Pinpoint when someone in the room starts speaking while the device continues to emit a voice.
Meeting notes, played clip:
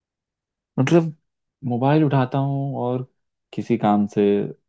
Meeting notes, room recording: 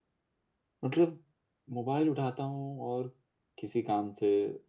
none

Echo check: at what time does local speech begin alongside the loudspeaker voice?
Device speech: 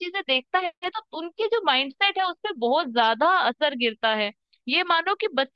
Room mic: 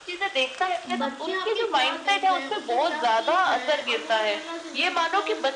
0.9 s

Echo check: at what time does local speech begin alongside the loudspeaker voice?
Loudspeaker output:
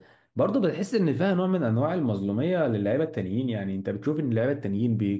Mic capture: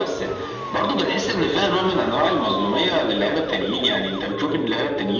none

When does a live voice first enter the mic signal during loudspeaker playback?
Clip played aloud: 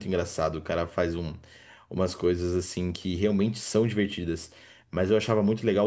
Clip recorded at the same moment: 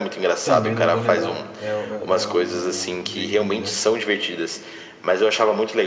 0.4 s

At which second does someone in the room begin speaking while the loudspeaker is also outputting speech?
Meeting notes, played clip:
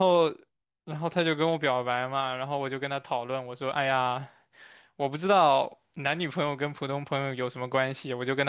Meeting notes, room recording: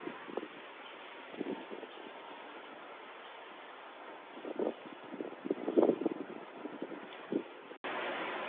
none

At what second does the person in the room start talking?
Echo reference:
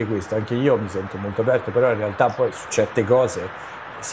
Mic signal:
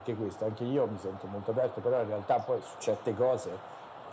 none

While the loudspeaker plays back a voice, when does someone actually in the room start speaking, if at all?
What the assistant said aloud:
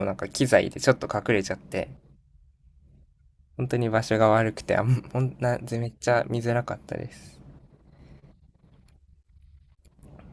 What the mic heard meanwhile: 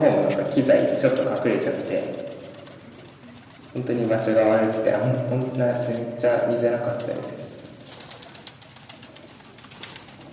none

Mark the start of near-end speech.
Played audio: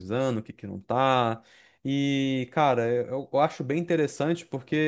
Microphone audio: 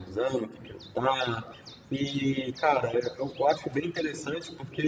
none

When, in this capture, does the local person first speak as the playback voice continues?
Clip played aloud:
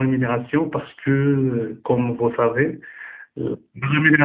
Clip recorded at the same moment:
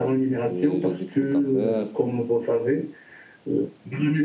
0.5 s

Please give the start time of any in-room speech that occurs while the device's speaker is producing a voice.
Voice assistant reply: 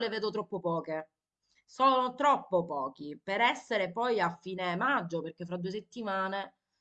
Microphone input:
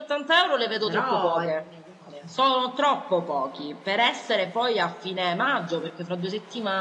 0.8 s

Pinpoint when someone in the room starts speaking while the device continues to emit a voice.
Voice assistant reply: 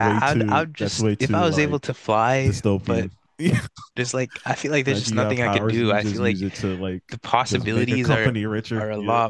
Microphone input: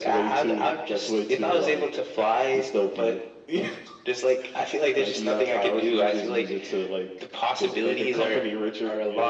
none

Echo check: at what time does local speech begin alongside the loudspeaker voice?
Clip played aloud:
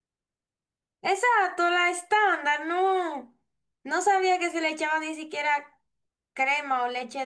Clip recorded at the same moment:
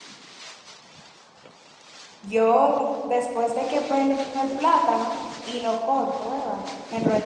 2.2 s

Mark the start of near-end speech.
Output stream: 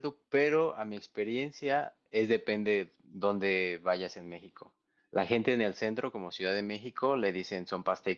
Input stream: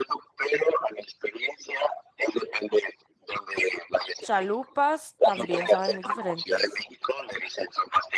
4.2 s

